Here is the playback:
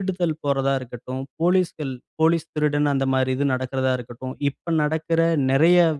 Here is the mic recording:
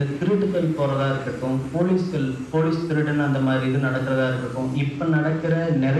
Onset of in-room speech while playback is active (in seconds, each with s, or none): none